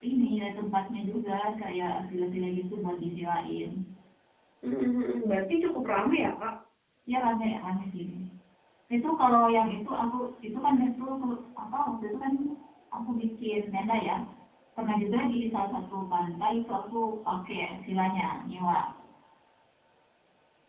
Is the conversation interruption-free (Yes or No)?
Yes